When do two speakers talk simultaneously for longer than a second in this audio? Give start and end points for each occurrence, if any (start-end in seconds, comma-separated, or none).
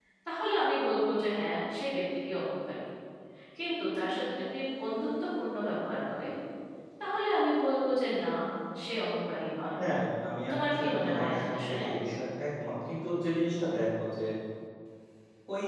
10.5-11.8